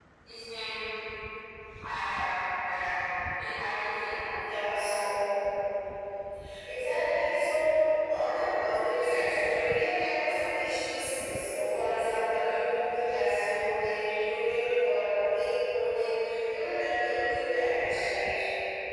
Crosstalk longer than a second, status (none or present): none